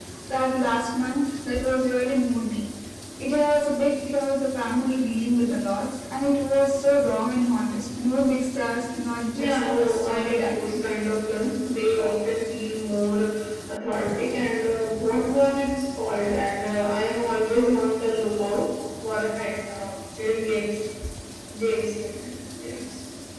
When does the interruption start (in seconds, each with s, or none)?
9.3 s